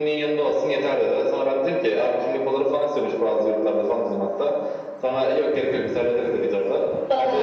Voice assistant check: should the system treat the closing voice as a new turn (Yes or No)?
No